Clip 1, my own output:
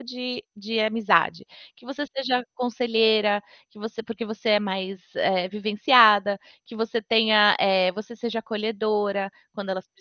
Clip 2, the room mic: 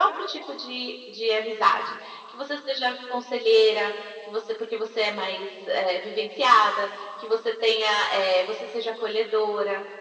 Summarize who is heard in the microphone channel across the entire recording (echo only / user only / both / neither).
echo only